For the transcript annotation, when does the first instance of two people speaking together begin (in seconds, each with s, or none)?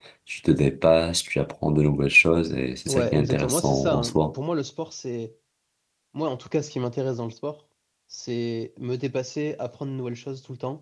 2.9 s